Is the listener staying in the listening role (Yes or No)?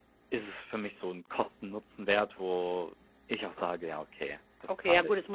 No